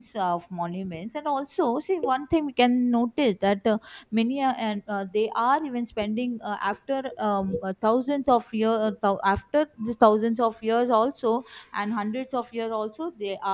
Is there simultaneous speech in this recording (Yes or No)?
No